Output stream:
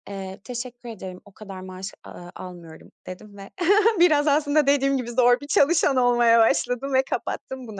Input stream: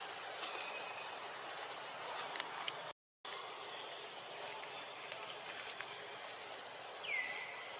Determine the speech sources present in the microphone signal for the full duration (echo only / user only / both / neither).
neither